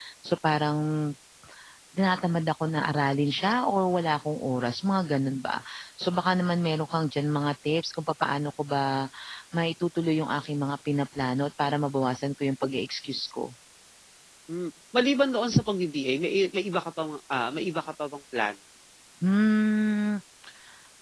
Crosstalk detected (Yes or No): No